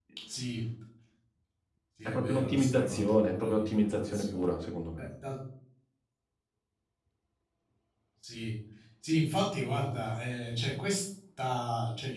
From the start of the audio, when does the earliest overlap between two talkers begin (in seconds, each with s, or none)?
2.0 s